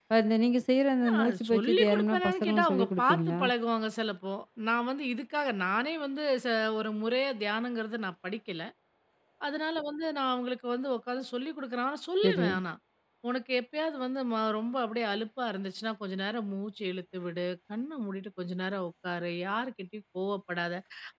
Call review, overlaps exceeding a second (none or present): present